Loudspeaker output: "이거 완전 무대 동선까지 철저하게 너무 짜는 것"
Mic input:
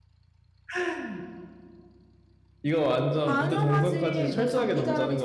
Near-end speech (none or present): present